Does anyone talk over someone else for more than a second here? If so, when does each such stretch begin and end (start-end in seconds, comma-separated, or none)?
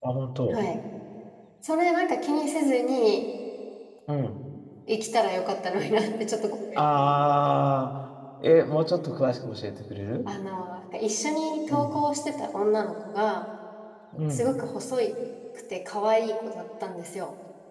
none